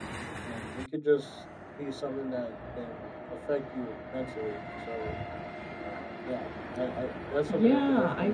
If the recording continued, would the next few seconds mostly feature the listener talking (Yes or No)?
Yes